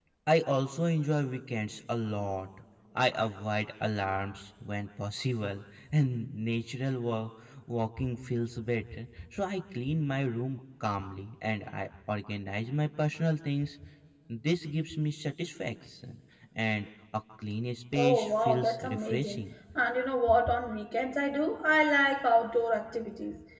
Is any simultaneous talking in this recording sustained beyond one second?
Yes, from 18.0 s

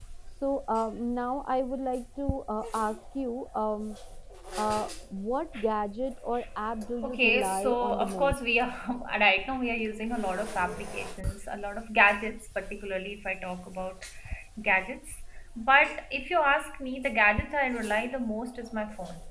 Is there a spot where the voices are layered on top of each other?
Yes, from 7.0 s

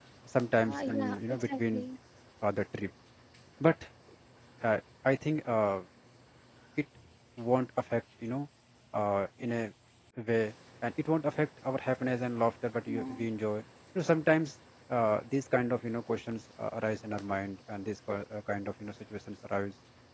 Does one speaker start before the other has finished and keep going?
Yes, from 0.6 s

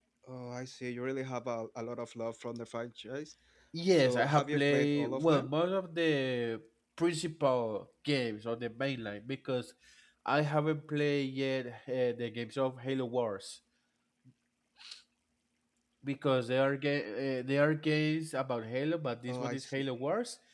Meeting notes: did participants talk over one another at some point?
Yes, from 3.9 s

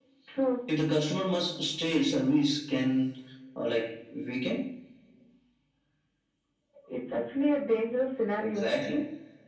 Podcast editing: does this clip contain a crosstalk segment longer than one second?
No

